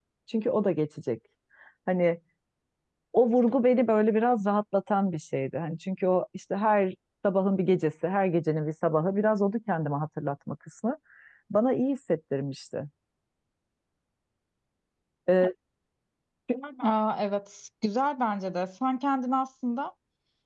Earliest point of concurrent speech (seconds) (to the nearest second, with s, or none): none